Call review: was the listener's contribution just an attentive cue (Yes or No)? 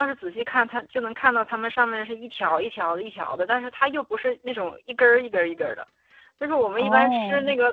Yes